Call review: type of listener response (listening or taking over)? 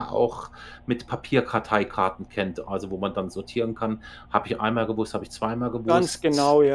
taking over